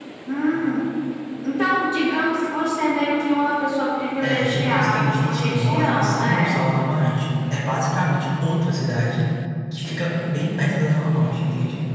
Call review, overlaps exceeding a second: present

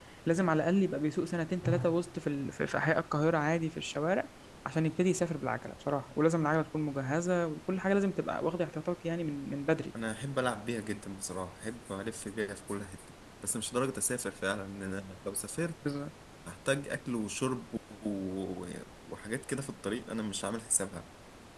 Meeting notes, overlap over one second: none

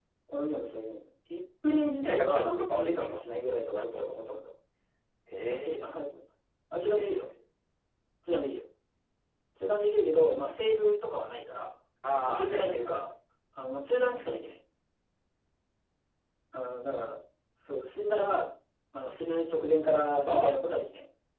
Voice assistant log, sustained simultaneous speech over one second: present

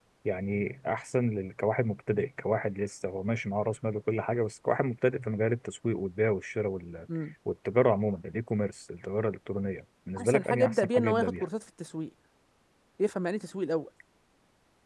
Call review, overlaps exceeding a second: present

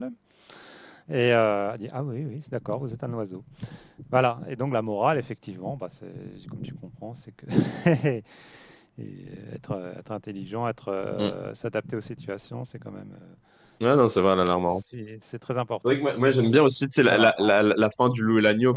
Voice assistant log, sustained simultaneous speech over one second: none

